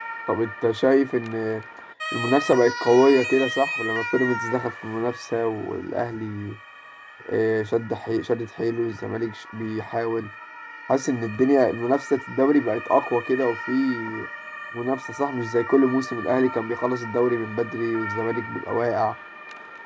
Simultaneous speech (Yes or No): No